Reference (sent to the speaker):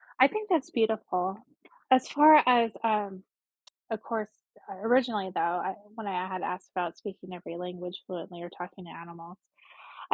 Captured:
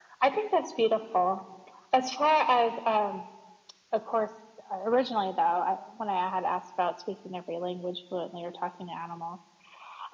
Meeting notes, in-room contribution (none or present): none